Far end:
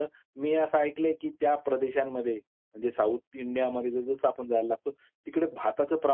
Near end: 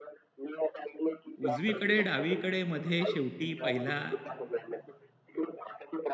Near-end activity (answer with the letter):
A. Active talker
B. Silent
A